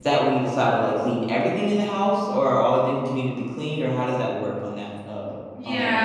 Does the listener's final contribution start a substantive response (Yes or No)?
Yes